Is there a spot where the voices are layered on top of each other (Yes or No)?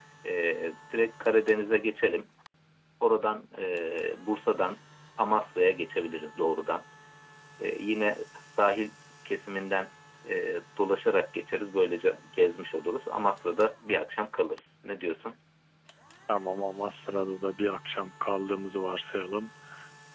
No